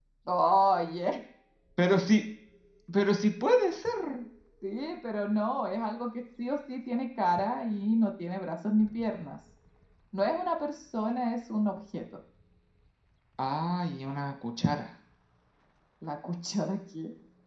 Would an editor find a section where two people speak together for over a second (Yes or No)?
No